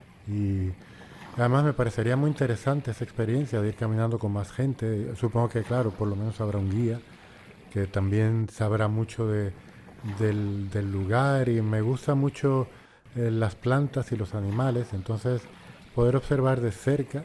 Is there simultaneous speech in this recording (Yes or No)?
No